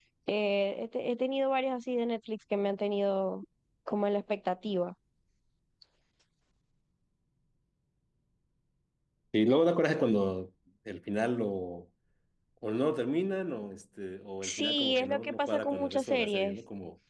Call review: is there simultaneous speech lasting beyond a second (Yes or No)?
Yes